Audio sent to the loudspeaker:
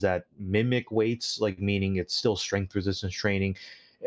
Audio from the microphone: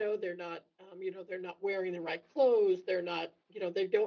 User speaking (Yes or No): Yes